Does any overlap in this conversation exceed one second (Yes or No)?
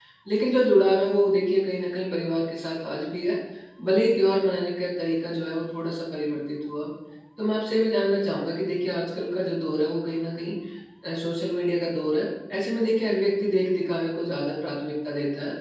No